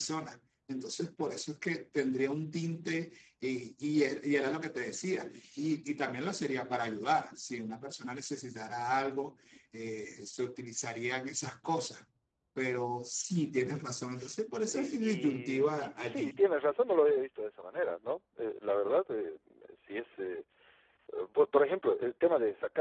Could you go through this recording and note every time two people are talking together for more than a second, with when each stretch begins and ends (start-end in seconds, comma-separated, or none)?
14.7-16.4